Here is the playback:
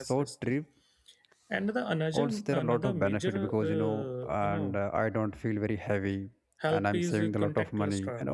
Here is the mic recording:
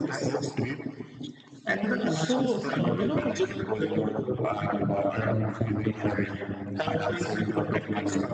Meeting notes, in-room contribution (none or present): present